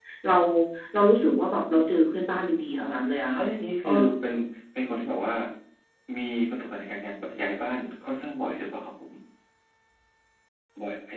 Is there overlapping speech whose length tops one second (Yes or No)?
No